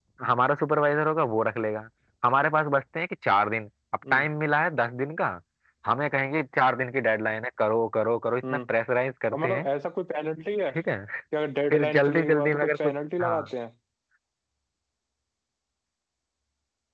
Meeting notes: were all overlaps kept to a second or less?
No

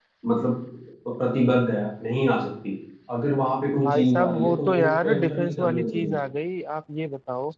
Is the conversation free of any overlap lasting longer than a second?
No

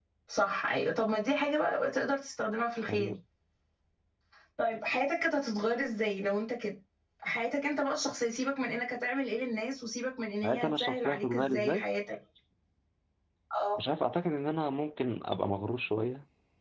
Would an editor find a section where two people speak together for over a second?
Yes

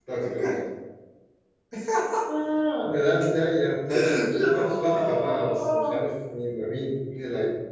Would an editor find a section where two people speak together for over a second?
Yes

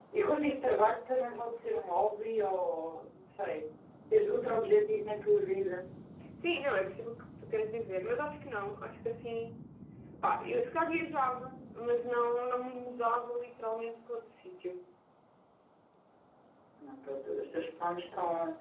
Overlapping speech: No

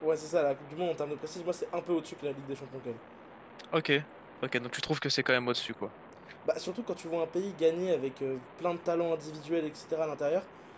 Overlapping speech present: No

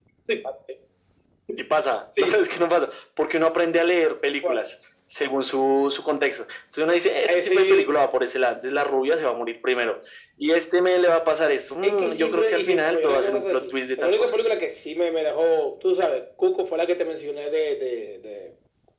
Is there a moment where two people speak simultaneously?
Yes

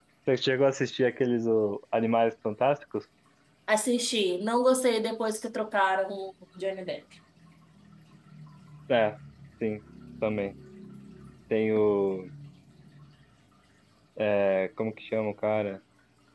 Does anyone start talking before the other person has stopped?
No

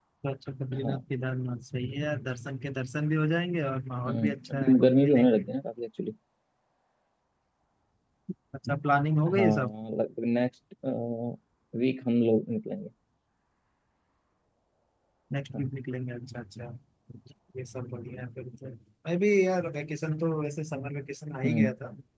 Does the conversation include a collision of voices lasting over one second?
Yes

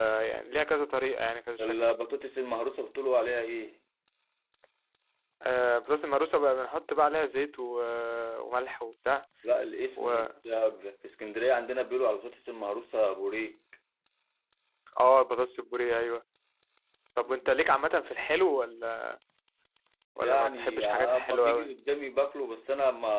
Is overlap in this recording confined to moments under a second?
No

